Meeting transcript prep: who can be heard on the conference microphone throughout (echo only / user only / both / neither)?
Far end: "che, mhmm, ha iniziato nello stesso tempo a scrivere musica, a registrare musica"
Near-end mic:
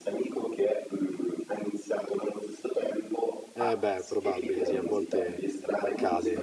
both